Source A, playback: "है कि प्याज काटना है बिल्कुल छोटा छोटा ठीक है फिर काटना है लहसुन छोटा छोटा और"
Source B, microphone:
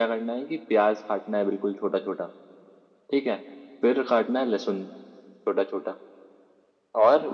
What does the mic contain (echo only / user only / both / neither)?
echo only